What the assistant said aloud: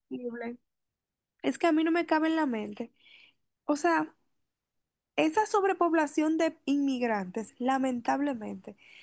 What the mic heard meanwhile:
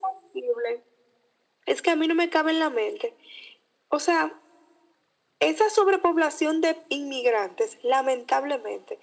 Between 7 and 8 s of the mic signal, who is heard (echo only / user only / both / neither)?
echo only